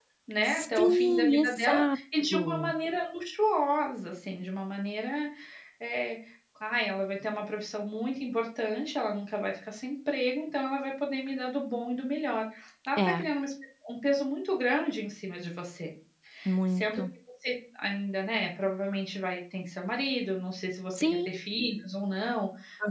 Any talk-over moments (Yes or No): Yes